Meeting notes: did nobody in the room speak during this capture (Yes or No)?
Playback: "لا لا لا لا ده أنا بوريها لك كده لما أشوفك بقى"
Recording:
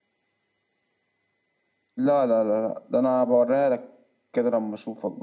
Yes